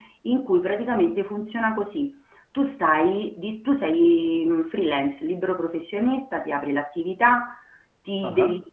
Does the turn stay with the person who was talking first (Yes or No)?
Yes